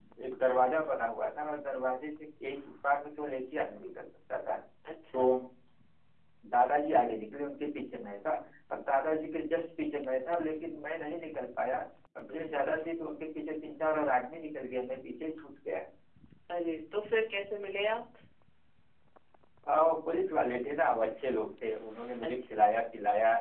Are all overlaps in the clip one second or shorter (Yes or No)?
Yes